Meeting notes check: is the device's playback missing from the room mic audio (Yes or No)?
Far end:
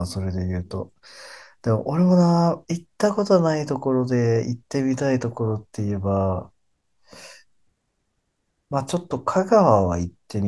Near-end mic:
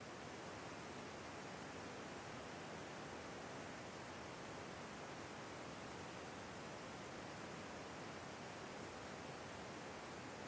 Yes